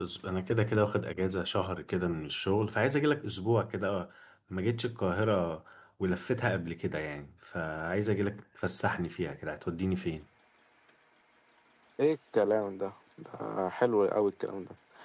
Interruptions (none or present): none